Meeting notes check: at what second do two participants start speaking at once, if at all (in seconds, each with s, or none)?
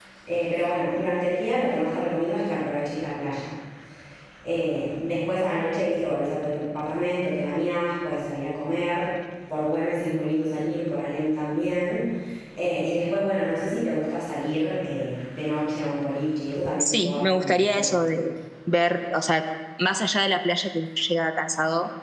16.8 s